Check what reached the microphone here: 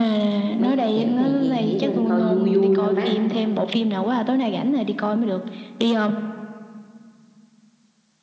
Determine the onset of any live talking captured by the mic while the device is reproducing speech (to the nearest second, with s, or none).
1 s